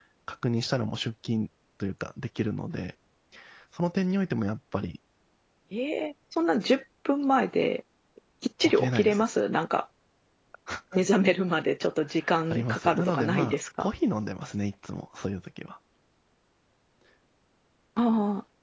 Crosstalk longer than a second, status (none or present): present